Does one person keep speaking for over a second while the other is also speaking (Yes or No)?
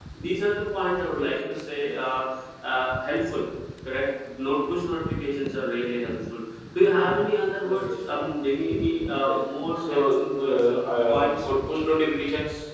Yes